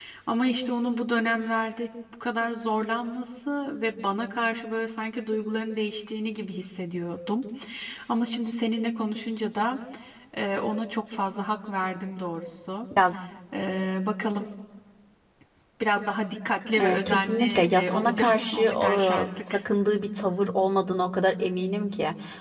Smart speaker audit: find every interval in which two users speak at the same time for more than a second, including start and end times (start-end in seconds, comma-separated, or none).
16.8-19.5